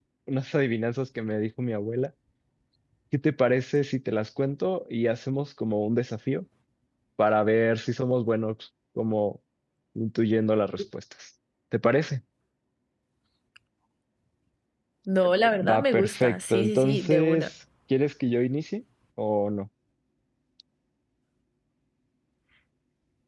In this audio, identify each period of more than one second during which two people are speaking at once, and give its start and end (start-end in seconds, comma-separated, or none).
15.6-17.5